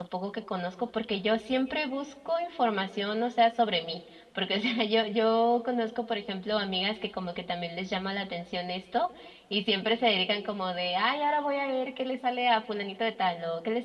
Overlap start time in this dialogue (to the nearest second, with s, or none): none